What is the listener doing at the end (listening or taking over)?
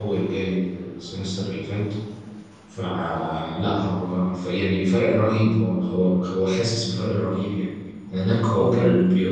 listening